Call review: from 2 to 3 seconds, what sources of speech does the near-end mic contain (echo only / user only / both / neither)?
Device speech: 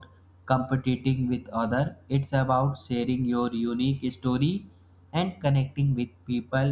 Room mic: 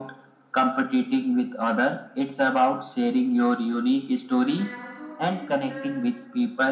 echo only